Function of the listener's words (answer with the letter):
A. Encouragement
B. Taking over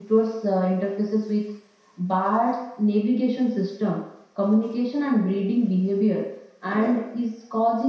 A